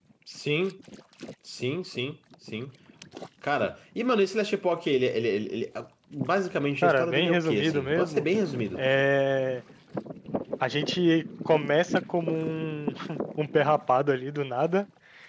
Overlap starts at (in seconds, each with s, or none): 6.8 s